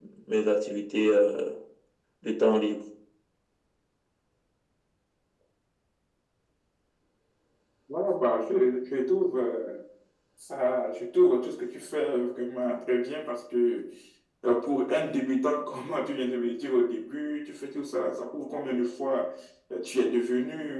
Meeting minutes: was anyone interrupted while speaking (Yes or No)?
No